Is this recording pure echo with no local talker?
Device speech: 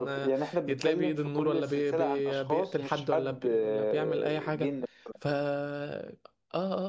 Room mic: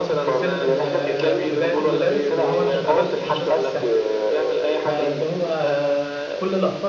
No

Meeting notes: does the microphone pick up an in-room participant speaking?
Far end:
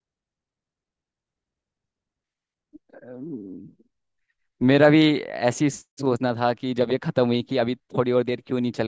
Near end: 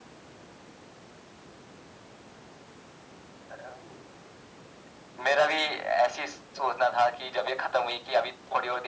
No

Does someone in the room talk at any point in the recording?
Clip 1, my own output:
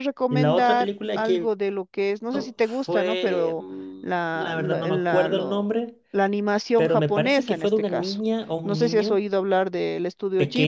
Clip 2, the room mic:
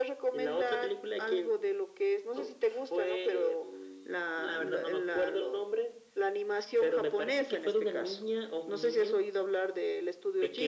No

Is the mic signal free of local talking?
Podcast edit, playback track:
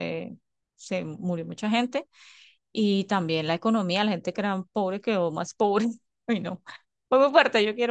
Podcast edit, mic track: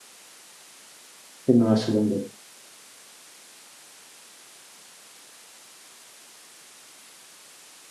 No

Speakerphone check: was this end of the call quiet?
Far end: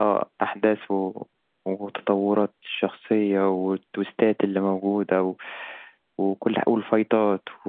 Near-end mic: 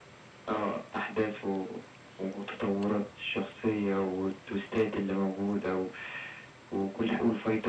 Yes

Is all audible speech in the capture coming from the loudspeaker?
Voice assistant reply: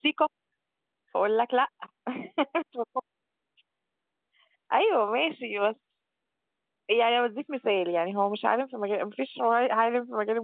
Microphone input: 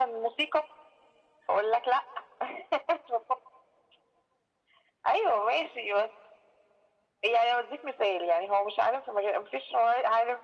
Yes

